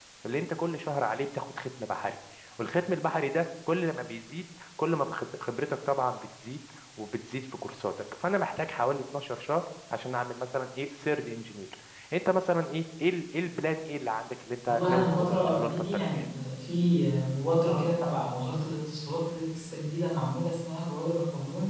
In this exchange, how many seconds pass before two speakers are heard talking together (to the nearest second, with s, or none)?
15 s